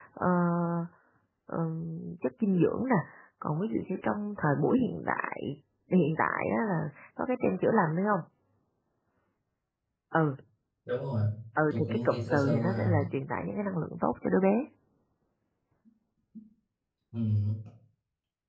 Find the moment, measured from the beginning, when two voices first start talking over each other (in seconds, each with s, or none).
11.7 s